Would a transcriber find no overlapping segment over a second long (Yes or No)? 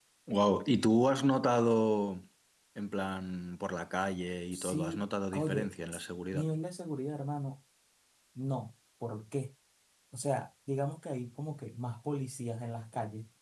No